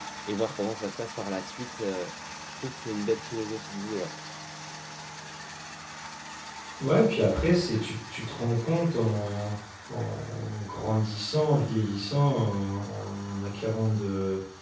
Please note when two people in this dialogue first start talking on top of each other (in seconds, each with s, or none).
none